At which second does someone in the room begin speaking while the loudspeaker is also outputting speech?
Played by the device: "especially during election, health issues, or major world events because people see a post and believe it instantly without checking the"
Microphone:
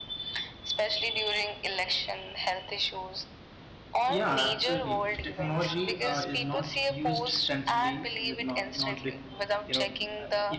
4 s

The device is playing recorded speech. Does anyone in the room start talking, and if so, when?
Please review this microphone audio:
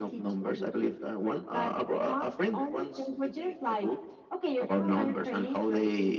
none

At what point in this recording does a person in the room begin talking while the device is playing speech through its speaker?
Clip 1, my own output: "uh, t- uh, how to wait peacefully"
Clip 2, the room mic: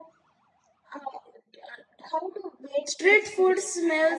3 s

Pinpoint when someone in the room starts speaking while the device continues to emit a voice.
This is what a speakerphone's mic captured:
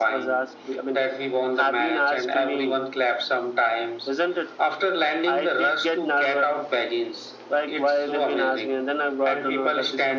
none

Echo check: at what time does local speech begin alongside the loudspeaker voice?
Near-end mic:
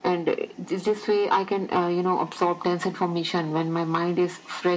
none

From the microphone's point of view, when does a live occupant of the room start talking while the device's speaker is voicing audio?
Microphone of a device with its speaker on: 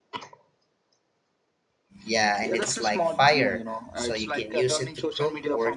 2 s

